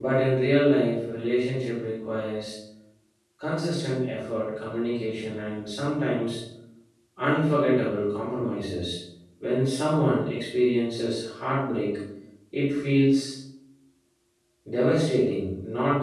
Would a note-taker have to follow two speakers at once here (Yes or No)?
No